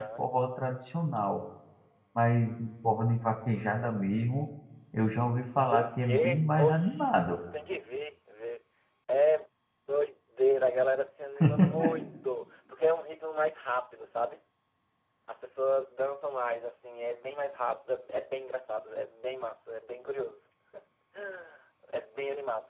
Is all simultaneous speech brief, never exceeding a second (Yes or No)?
No